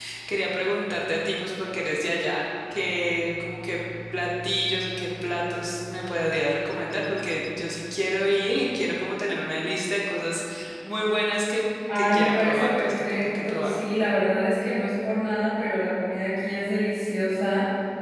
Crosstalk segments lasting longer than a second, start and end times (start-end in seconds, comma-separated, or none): 11.9-13.7